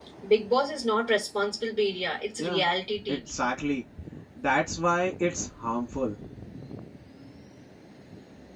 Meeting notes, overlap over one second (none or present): none